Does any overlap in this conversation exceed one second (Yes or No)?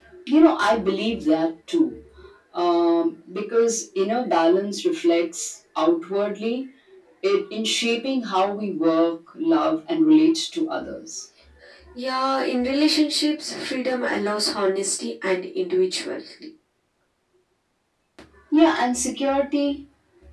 No